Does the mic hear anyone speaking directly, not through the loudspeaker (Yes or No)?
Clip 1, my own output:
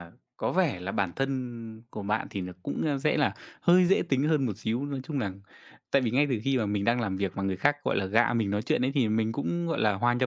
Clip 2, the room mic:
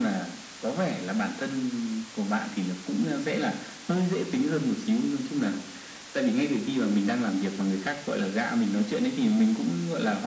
No